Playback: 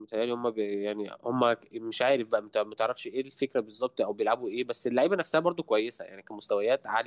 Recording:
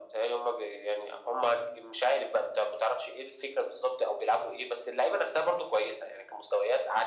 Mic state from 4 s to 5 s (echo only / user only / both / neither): echo only